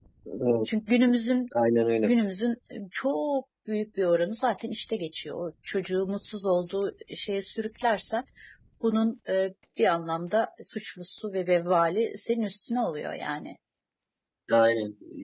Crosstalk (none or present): none